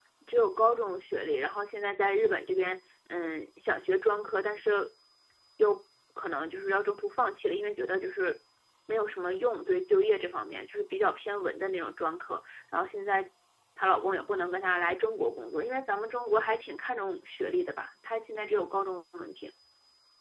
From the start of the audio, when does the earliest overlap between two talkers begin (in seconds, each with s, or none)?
none